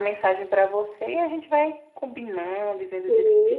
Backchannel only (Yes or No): No